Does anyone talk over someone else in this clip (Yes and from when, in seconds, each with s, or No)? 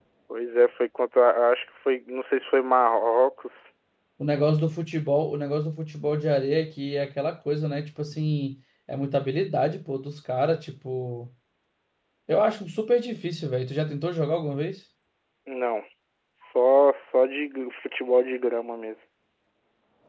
No